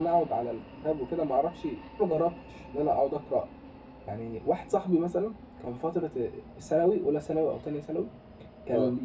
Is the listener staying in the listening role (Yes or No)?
Yes